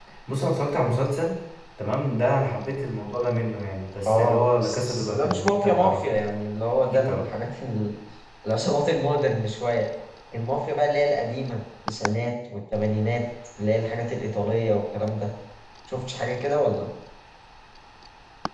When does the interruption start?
4.0 s

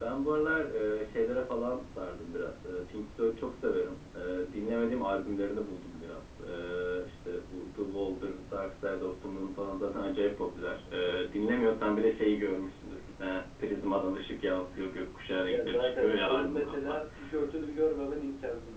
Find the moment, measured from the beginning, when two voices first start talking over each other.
15.5 s

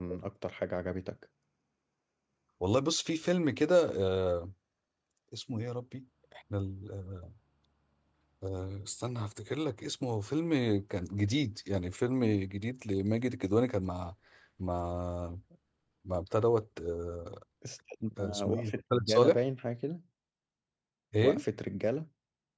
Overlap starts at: 18.2 s

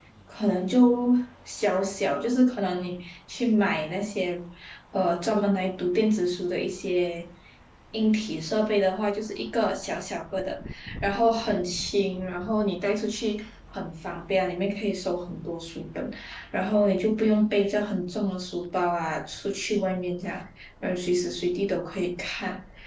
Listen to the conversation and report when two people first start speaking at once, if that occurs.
none

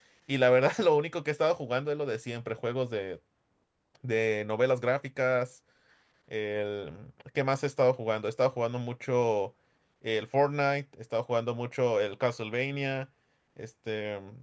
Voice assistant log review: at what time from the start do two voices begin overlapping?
none

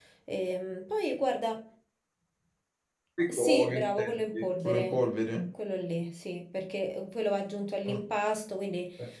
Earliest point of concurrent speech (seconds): 3.3 s

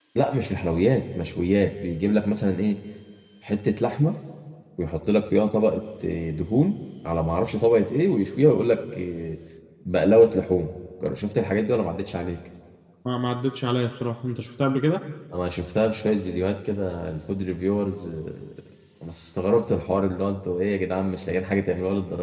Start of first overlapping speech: none

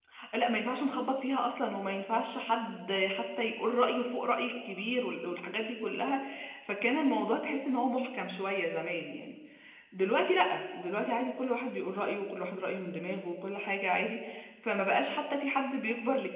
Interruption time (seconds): none

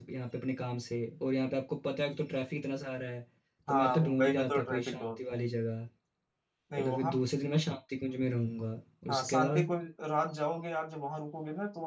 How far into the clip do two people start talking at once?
3.7 s

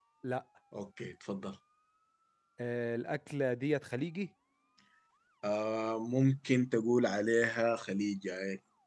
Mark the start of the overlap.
none

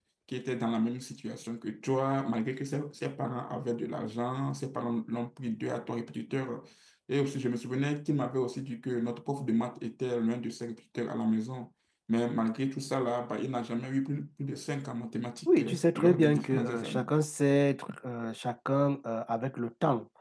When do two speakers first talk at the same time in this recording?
15.5 s

